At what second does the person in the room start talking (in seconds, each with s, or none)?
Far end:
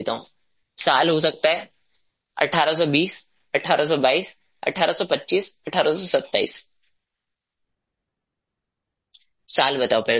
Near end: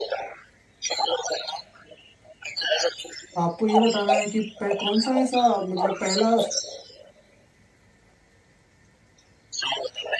3.4 s